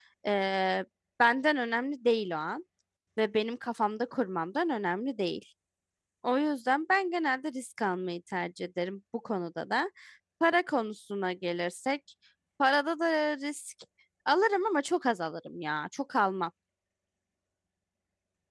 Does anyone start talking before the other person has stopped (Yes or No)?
No